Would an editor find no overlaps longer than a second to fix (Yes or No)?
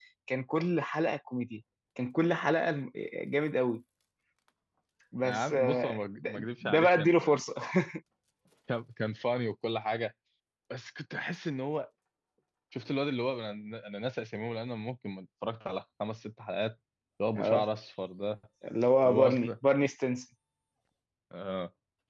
No